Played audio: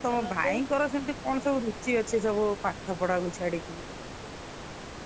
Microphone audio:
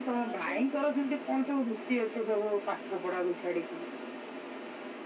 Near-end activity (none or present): none